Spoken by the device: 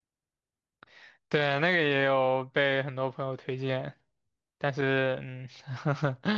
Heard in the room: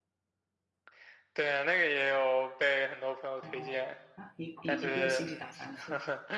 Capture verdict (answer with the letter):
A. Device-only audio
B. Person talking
B